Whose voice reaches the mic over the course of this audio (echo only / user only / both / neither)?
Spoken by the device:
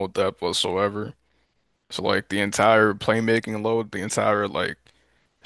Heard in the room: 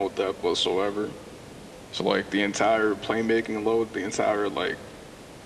echo only